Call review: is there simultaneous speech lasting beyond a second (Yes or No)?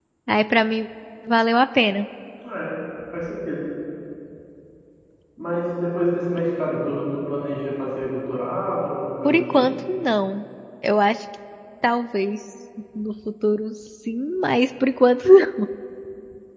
No